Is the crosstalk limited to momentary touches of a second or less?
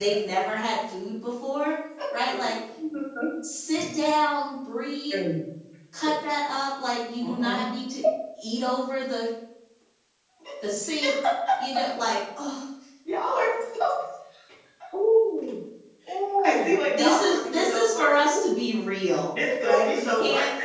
No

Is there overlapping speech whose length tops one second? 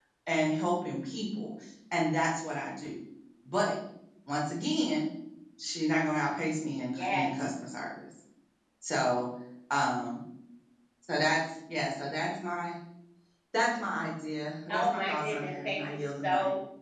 Yes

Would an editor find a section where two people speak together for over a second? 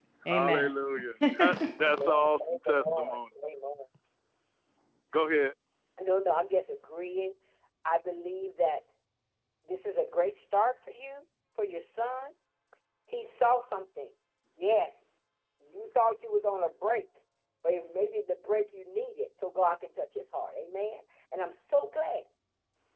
Yes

